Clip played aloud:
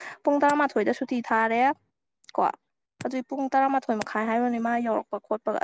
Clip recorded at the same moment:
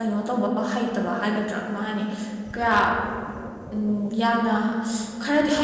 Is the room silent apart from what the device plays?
No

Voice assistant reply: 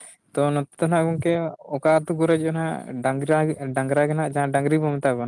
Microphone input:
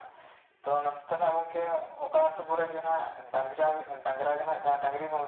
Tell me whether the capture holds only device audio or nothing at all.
Yes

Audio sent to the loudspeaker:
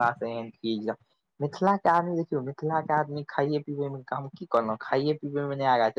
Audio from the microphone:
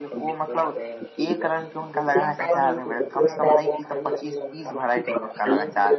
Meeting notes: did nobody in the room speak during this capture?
No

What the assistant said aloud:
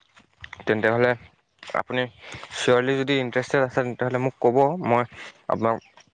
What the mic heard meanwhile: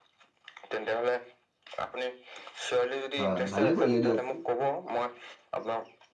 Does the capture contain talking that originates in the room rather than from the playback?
Yes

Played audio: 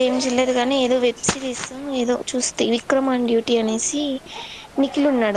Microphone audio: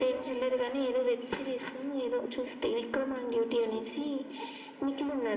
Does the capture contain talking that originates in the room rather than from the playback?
No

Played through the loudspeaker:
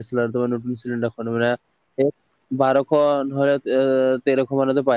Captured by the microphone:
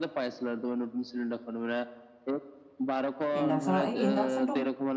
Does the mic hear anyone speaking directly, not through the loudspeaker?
Yes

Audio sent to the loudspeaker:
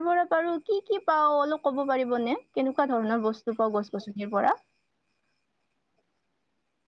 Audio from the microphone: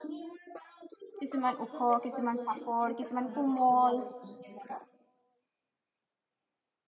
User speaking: Yes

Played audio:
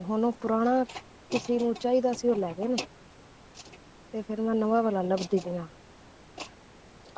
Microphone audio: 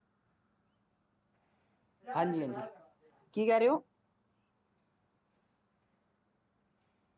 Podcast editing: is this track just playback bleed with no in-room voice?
No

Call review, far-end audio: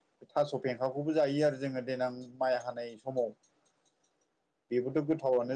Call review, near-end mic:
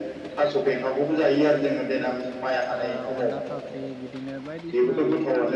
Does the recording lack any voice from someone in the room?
No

